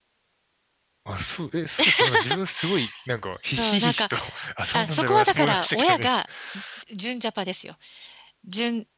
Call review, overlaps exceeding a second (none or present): present